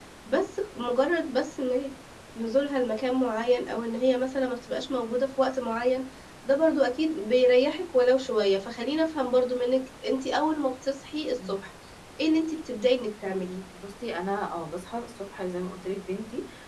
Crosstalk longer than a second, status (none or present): none